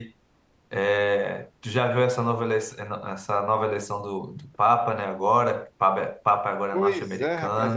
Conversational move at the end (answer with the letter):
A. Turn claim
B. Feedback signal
A